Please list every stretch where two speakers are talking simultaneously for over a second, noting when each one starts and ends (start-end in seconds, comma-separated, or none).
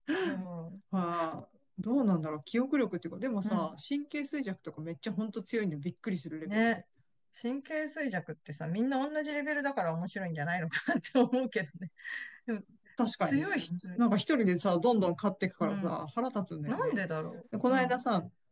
none